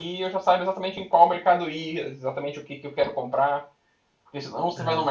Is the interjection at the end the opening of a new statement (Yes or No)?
No